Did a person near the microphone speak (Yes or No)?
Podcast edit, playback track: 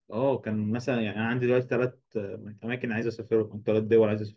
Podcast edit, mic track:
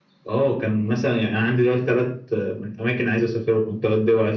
No